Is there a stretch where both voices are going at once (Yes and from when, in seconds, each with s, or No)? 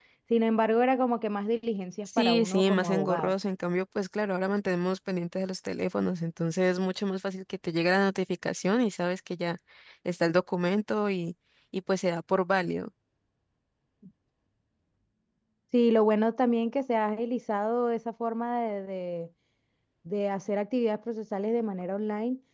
Yes, from 2.1 s